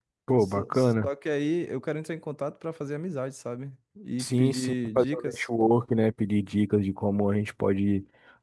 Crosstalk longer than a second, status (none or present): present